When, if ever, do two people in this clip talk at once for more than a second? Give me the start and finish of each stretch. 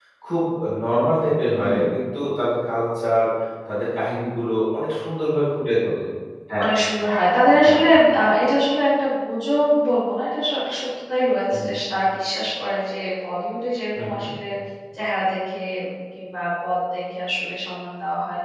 none

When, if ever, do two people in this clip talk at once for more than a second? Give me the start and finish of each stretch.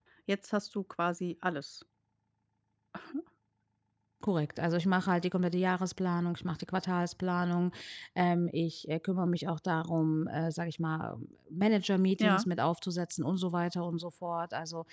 none

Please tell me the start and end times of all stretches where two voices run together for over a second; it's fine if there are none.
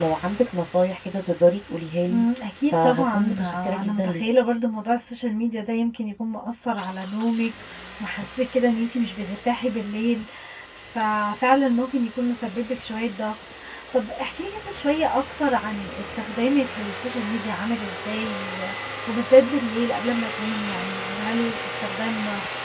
2.7-4.2

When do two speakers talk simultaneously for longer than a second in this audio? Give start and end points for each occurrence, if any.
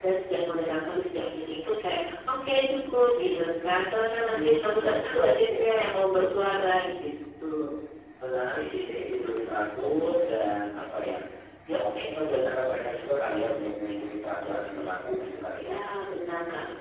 4.2-5.8

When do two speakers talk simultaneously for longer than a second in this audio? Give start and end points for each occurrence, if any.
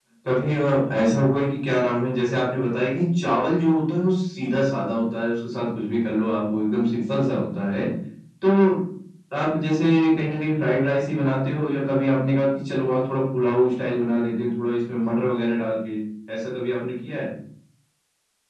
none

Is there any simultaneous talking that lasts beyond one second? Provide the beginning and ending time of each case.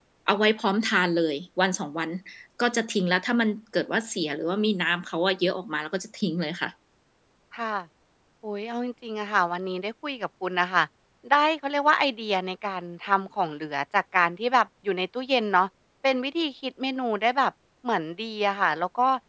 none

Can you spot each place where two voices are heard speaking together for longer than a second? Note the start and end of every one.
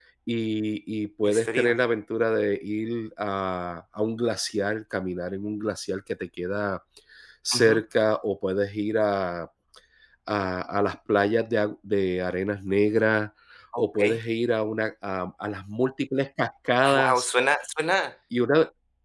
none

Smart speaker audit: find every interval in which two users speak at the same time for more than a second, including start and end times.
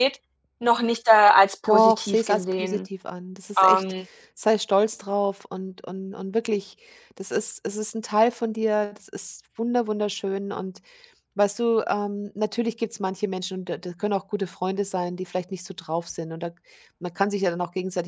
1.7-2.9

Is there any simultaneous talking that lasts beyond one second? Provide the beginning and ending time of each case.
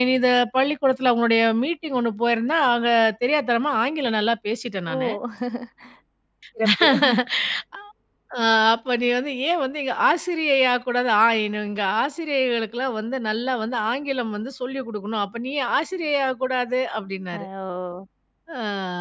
none

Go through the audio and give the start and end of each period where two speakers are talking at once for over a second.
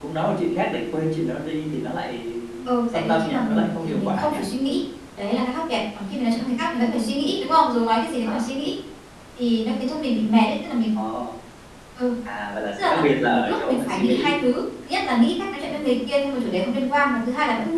2.9-4.4, 12.8-14.4

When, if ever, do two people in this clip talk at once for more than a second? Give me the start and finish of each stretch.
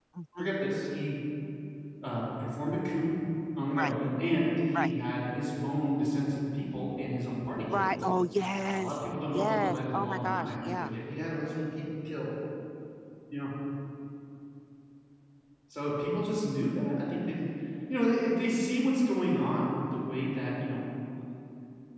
8.7-10.9

